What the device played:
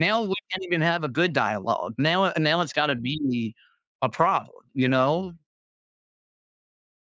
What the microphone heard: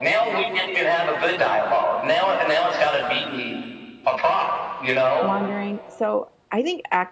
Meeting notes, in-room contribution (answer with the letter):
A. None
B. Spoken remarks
B